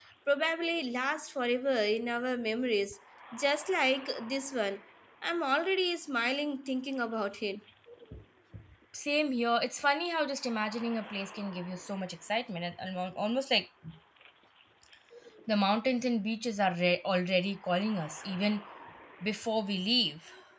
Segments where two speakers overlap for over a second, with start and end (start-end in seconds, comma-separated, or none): none